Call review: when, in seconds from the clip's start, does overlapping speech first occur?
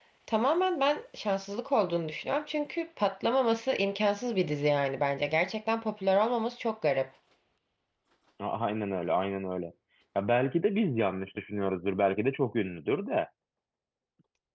none

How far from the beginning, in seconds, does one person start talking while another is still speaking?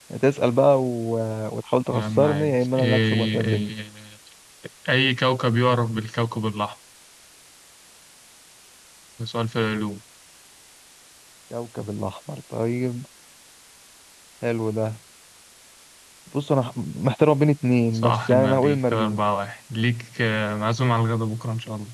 1.9 s

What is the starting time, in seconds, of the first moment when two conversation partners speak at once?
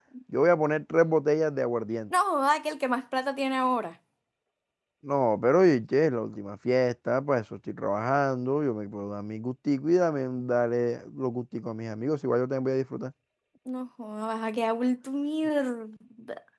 none

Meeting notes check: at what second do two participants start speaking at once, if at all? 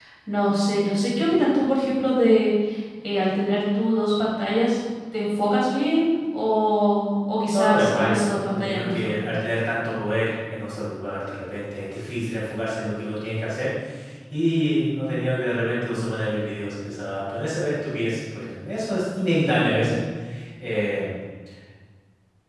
7.5 s

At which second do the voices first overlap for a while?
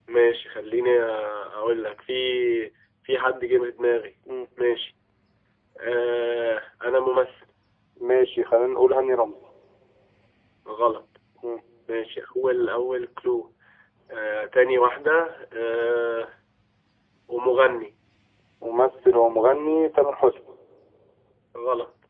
none

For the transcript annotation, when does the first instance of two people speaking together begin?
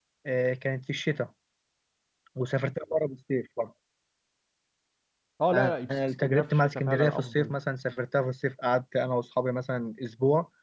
5.5 s

